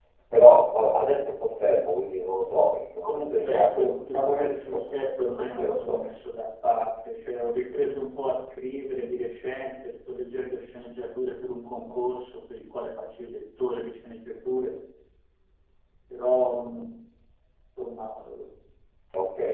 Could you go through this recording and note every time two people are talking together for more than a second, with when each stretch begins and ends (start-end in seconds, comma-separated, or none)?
3.0-6.0